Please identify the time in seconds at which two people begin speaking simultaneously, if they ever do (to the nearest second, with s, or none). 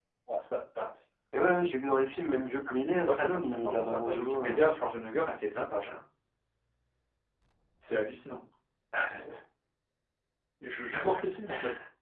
3 s